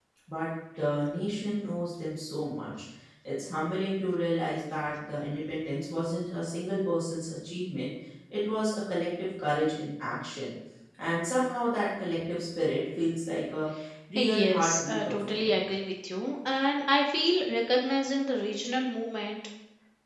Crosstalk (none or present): present